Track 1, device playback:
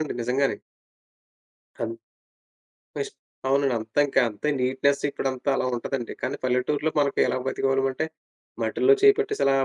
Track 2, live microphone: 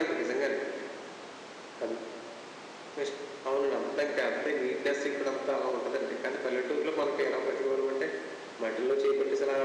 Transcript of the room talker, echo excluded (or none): none